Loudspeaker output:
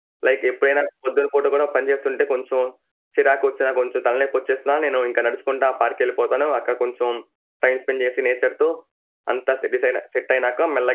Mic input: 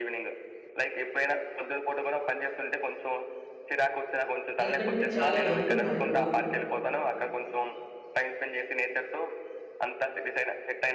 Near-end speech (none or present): present